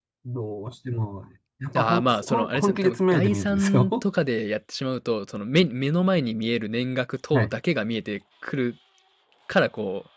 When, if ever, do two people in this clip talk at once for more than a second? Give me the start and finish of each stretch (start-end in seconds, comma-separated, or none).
1.8-4.0